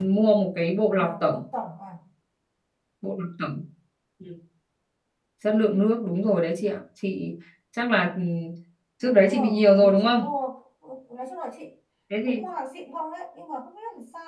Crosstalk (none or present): present